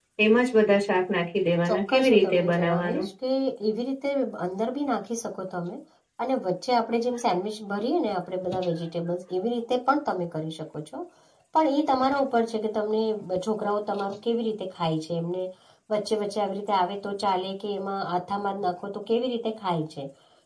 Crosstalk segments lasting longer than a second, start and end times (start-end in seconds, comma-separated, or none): 1.7-3.1